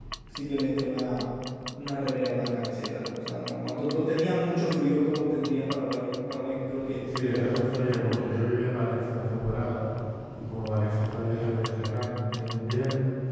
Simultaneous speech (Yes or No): Yes